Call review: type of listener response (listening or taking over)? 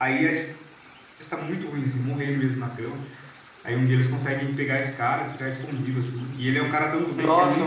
taking over